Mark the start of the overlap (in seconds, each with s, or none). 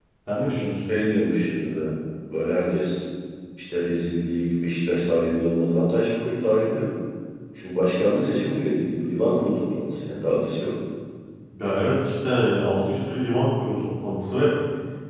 none